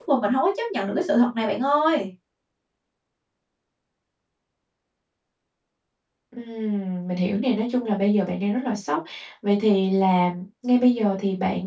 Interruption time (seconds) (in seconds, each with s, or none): none